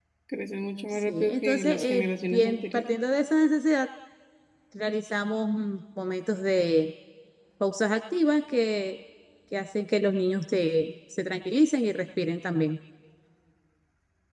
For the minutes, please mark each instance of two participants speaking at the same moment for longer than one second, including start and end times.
0.9-2.8

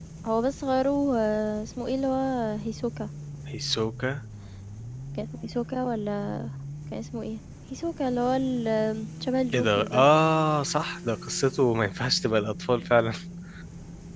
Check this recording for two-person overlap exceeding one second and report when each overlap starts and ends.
none

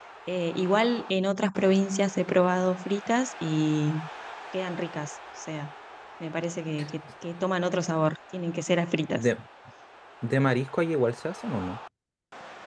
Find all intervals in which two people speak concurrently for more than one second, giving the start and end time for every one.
none

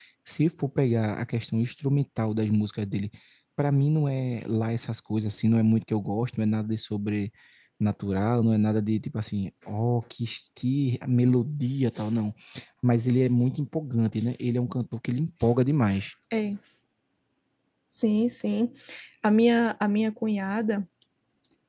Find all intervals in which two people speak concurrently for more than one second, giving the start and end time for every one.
none

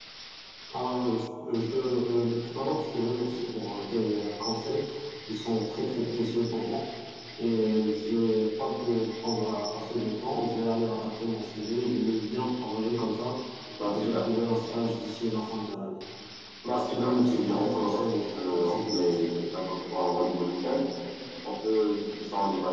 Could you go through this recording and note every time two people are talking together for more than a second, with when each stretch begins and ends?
16.6-19.2

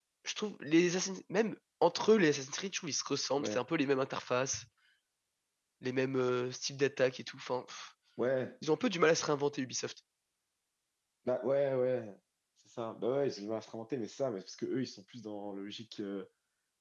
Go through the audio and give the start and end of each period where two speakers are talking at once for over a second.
none

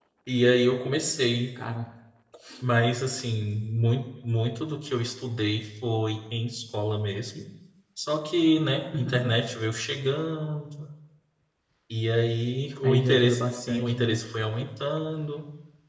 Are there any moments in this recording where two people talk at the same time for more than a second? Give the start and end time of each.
12.8-14.2

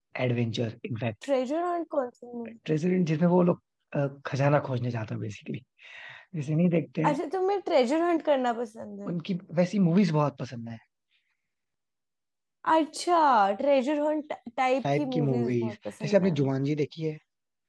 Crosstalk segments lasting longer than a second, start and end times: 15.0-16.3

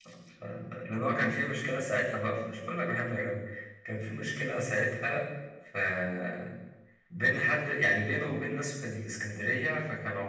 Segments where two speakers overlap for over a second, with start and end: none

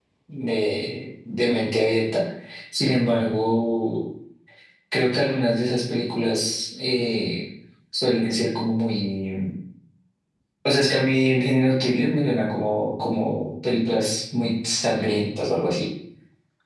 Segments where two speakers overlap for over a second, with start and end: none

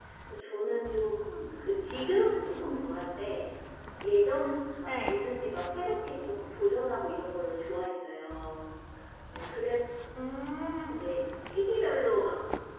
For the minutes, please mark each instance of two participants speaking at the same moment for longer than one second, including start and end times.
none

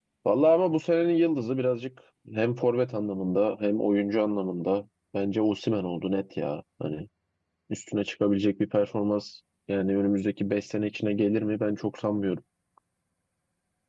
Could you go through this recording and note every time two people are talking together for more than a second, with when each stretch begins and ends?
none

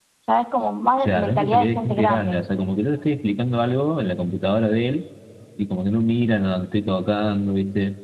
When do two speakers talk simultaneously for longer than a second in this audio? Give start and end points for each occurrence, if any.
1.1-2.4

